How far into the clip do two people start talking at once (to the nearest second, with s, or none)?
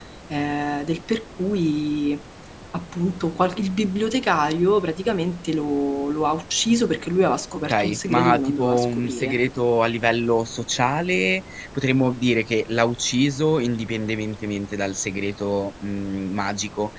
8 s